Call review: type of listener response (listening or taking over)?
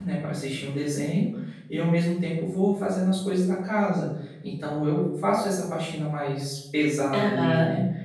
taking over